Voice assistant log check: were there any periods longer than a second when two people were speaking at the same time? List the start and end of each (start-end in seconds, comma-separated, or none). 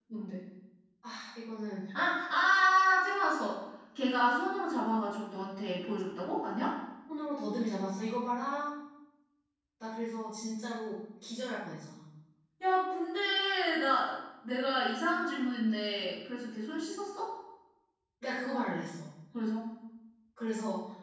none